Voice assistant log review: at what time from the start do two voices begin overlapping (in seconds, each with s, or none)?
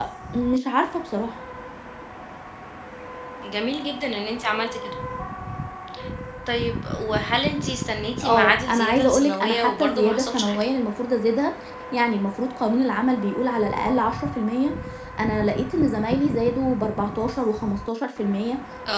8.2 s